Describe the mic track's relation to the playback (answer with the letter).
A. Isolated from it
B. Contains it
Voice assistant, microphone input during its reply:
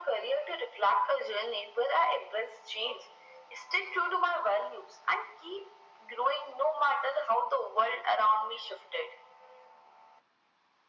B